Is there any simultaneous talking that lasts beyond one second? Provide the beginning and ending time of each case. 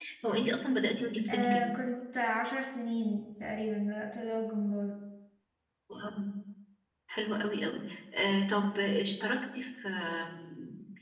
none

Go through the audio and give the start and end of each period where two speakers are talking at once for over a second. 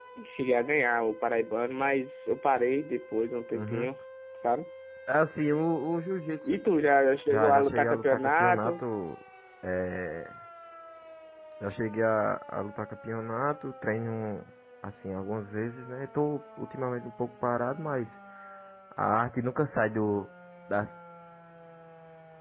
7.3-8.8

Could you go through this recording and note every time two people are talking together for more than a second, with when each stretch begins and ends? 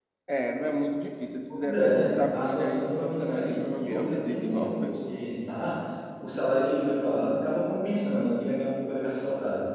1.5-4.9

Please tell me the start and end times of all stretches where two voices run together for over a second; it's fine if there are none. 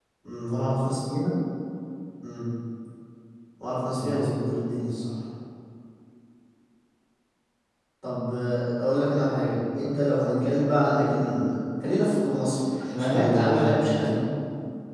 13.0-14.2

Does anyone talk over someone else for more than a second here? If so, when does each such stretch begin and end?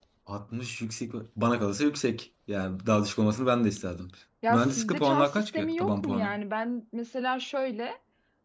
4.5-6.4

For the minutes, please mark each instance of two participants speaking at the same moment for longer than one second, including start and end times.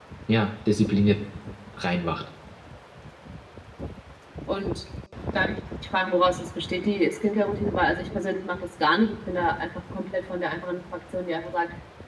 none

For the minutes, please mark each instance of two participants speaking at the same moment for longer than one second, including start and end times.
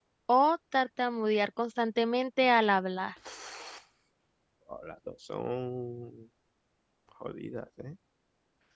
none

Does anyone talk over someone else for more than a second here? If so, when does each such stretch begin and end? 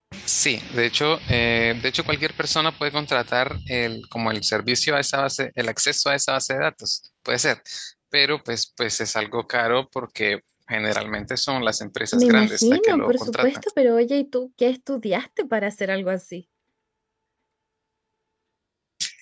12.1-13.5

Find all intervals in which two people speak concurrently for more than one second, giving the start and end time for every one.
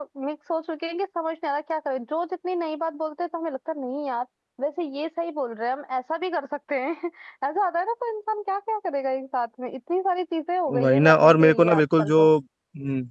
10.8-12.3

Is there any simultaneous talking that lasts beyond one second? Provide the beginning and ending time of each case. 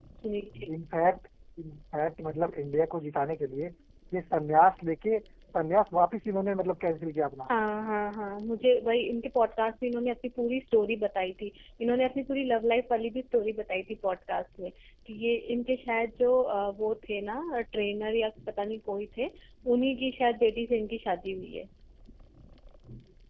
none

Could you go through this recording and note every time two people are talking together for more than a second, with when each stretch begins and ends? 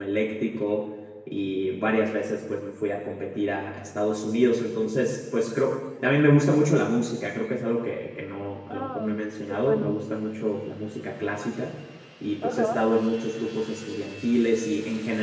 8.7-10.0

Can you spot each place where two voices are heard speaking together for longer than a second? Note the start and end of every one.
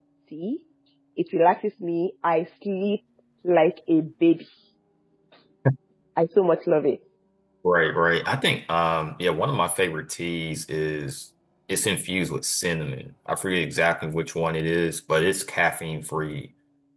none

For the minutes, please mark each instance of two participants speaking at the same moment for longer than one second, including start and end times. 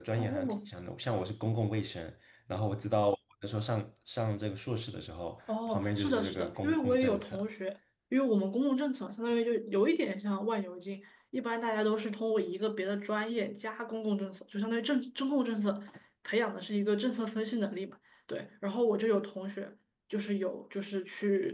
5.7-7.4

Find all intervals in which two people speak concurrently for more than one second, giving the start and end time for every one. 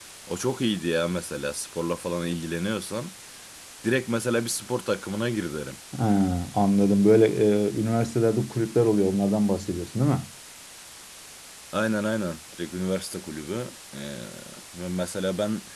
none

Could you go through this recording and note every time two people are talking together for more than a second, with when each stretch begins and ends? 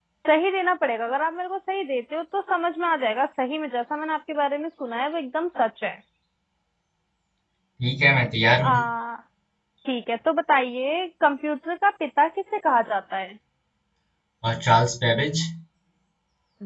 none

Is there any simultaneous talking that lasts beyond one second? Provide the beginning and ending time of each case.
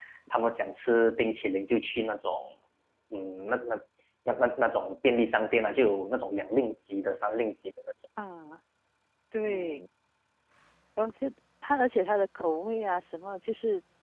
none

